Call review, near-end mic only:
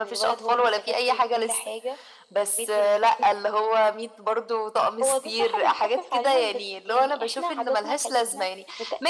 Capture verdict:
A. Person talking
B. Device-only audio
B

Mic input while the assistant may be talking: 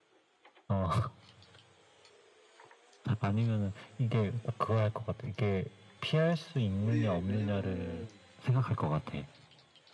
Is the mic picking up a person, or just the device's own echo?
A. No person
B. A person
B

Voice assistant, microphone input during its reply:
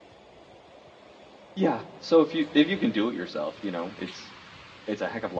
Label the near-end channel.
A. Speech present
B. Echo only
A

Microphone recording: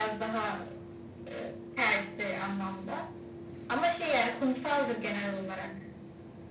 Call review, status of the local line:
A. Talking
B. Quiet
B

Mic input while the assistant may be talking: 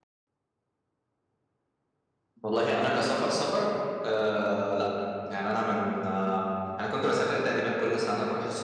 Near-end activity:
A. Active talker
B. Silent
A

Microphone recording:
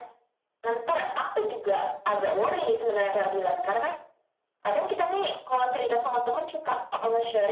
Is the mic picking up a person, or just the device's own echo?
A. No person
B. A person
A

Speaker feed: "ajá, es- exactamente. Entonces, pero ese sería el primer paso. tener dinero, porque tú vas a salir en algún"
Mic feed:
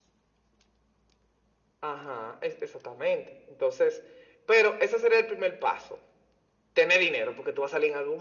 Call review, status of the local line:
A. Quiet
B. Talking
A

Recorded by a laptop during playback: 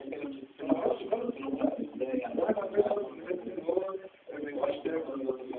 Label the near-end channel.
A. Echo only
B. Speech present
A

